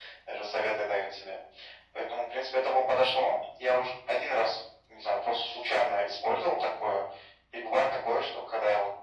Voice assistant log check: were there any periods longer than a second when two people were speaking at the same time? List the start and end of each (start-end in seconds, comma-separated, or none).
none